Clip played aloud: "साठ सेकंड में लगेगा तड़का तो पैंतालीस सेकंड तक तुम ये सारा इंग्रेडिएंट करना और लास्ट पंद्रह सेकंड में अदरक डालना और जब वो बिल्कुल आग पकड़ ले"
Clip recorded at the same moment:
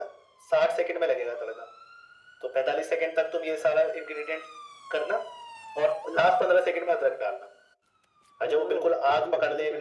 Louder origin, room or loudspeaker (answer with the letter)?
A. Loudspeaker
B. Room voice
A